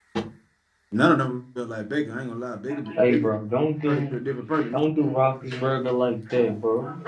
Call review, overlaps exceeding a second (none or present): none